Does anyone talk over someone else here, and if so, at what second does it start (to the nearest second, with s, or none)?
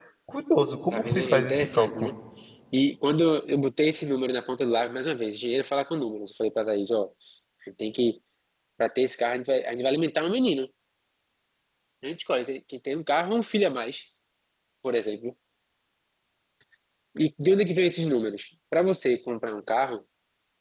1 s